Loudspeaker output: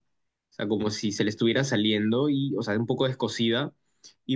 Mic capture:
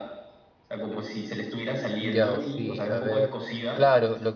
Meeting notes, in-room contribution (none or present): present